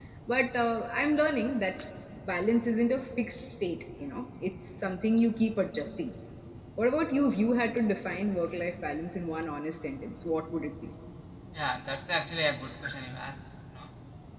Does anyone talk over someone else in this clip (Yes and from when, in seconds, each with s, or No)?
No